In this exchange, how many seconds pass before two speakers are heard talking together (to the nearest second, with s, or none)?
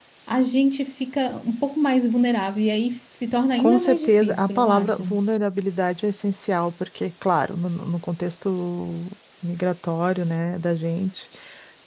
4 s